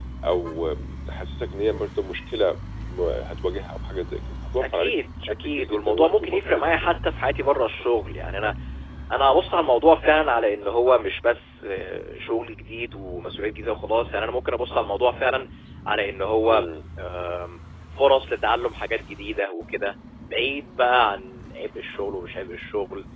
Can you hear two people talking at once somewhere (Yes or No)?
Yes